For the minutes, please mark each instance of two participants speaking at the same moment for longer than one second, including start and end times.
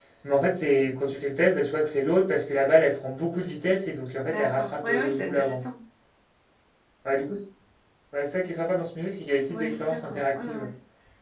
4.3-5.6, 9.5-10.7

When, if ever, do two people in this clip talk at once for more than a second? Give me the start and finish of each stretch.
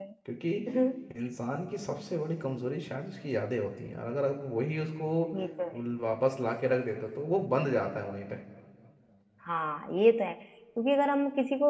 none

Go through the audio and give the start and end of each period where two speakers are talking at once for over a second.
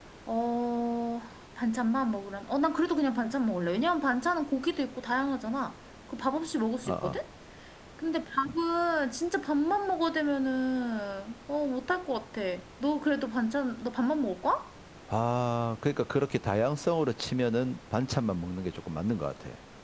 none

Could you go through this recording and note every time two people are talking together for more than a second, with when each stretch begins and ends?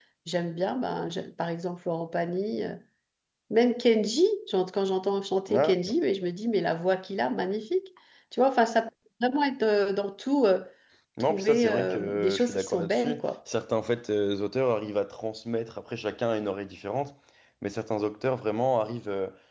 11.2-13.2

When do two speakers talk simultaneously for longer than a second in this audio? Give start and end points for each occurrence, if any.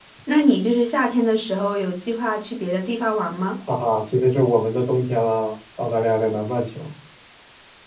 none

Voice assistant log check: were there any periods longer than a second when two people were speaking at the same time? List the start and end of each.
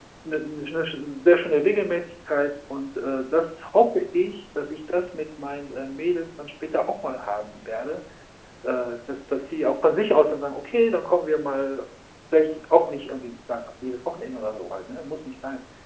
none

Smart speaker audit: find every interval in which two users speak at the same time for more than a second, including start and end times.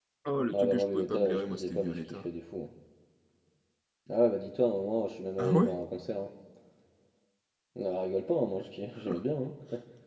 0.5-2.3

